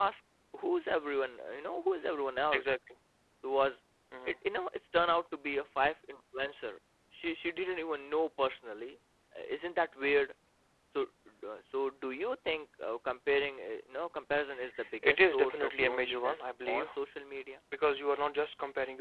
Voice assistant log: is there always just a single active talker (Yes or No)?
No